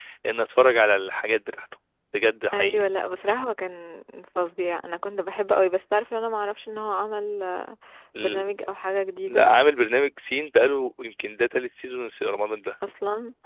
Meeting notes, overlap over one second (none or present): none